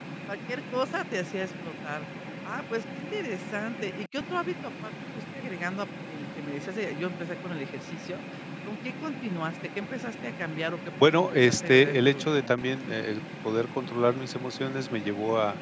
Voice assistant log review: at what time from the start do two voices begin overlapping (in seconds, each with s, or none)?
11.0 s